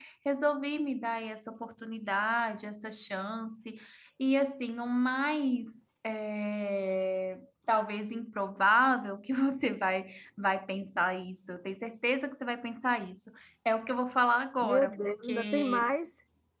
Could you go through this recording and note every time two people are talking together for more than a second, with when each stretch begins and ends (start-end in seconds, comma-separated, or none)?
14.6-15.9